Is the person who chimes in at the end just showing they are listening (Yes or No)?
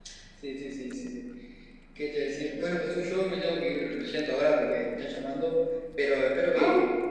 Yes